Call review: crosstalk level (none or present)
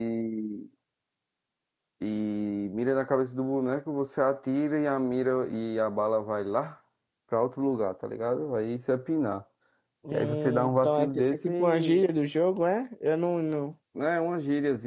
present